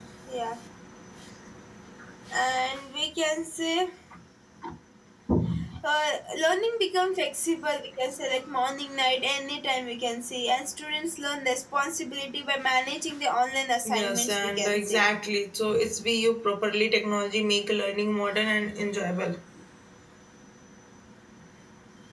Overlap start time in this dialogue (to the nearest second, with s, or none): 14 s